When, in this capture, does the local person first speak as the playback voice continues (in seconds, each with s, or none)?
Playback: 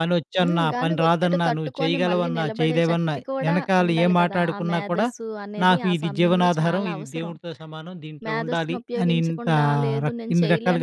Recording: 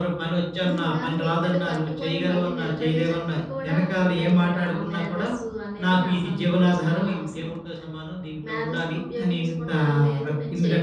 none